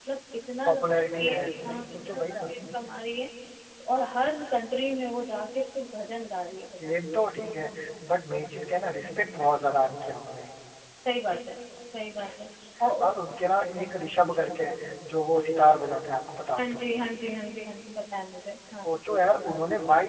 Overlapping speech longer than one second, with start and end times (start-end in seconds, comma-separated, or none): 0.7-2.5